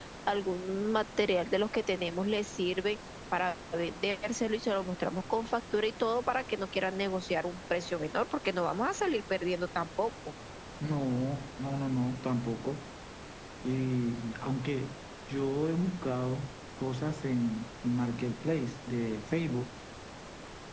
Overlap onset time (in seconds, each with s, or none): none